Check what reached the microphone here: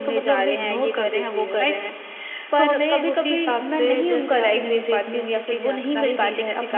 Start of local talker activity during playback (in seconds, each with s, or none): none